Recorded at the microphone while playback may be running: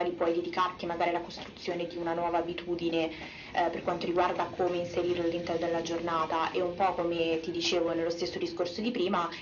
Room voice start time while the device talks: none

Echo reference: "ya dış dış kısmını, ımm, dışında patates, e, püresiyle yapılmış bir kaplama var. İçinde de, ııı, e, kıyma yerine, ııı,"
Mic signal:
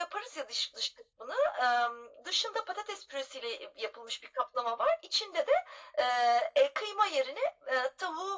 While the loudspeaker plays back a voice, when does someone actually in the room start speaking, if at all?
none

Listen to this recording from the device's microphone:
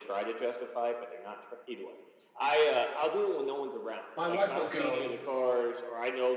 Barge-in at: 4.2 s

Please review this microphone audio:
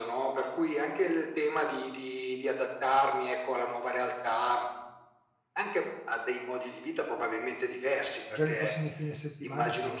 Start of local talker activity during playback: 8.3 s

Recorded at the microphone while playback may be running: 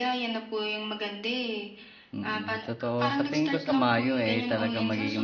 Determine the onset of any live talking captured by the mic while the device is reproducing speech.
2.1 s

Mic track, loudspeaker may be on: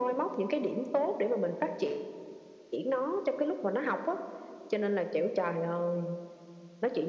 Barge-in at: none

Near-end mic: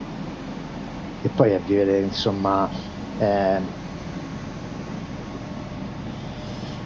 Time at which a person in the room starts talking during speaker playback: 1.2 s

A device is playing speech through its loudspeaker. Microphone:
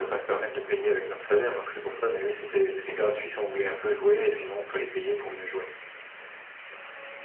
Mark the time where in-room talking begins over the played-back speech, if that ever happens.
none

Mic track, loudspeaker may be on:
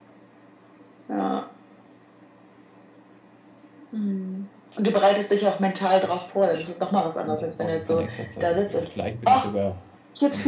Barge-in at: 6.0 s

